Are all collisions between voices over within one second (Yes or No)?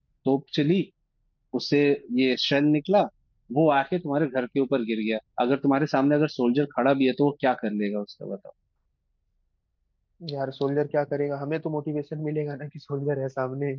Yes